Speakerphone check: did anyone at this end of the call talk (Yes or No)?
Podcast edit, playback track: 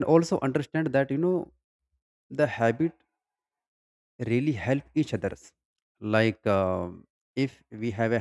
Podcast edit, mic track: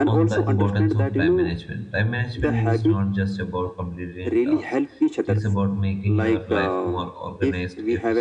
Yes